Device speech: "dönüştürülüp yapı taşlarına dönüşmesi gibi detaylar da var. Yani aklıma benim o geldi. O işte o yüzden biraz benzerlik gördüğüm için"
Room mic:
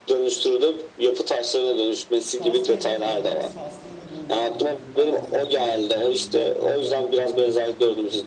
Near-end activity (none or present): present